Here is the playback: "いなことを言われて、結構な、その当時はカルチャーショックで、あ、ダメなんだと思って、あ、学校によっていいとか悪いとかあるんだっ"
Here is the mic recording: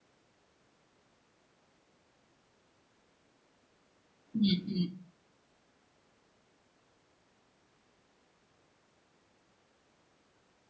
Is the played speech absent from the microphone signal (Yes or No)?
Yes